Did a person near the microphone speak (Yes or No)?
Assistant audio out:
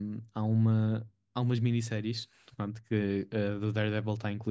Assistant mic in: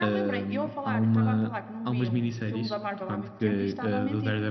Yes